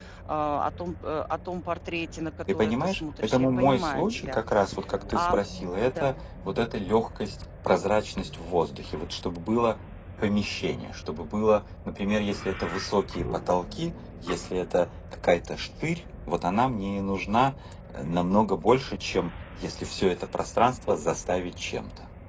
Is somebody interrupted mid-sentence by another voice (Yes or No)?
Yes